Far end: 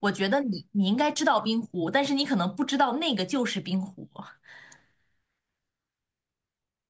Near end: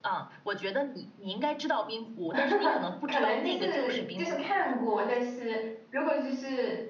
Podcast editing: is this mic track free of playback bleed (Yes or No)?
No